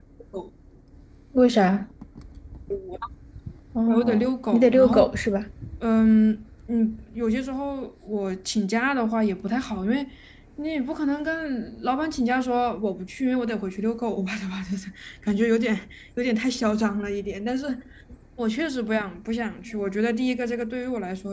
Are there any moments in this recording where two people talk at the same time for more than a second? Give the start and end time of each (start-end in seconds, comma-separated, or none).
3.9-5.1